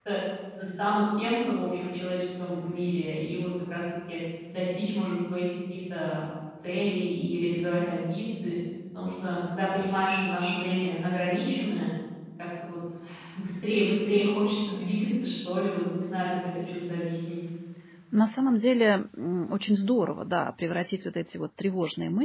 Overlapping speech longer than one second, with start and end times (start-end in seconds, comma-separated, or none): none